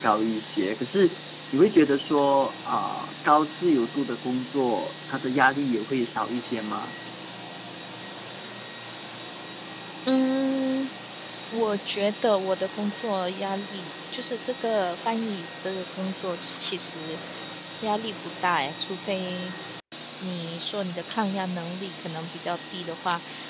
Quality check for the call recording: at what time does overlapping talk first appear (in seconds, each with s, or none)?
none